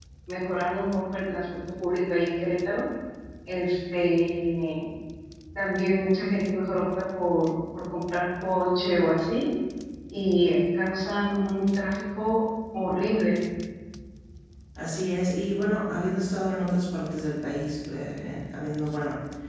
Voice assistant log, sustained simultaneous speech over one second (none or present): none